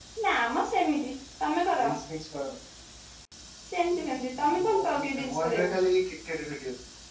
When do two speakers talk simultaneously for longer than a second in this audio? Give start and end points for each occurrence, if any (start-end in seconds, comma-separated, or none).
4.5-5.8